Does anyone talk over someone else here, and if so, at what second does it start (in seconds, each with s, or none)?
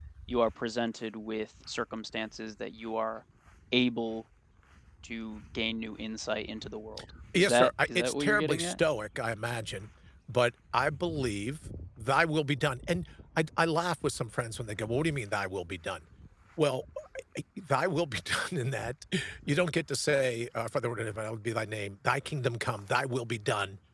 7.3 s